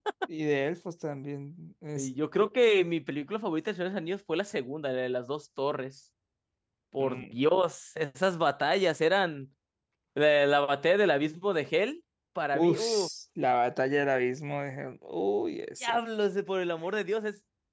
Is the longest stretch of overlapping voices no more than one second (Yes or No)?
Yes